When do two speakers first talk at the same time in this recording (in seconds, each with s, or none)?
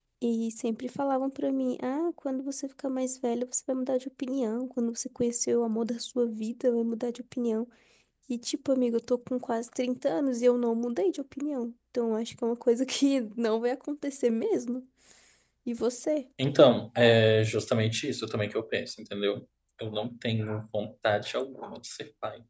none